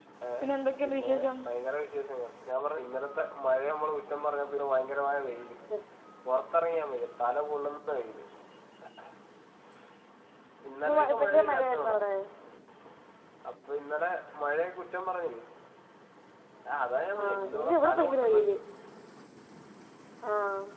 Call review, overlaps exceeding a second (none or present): present